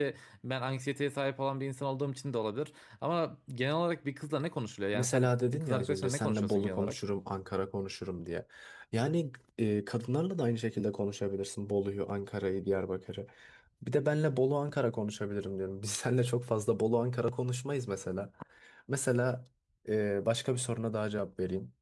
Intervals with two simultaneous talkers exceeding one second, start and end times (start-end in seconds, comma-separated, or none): 4.9-7.0